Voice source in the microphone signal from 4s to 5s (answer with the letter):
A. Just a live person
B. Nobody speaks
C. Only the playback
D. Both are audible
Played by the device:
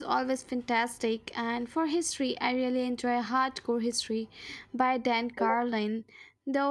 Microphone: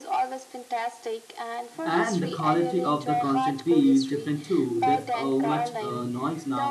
D